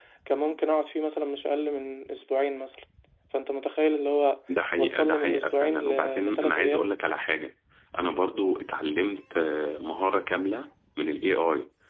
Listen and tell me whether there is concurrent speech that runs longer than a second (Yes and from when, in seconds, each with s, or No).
Yes, from 4.8 s